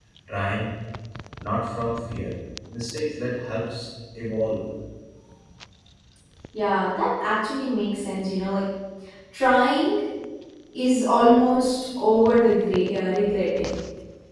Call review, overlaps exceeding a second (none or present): none